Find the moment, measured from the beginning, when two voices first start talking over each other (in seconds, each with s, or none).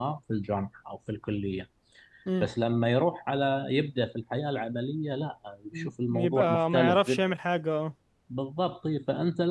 5.7 s